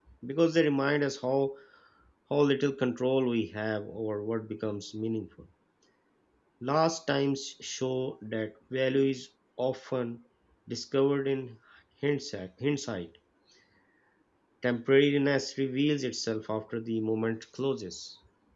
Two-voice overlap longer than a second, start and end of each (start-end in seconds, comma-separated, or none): none